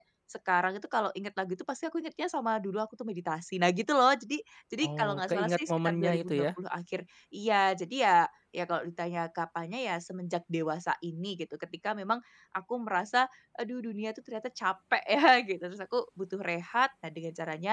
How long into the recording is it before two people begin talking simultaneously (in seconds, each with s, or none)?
4.8 s